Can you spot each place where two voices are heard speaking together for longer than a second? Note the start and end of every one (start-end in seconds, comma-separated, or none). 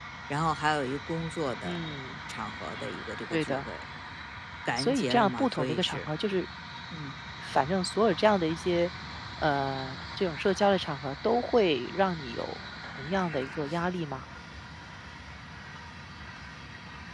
4.8-6.1